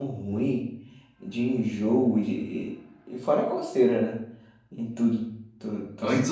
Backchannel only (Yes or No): No